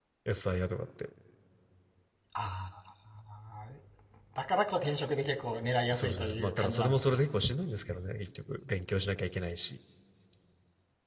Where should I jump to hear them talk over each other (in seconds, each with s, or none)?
5.9 s